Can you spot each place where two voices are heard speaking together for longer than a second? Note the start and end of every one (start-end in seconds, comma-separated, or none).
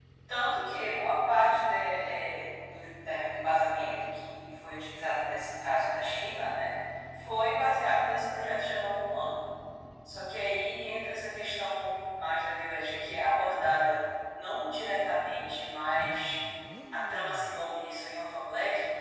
none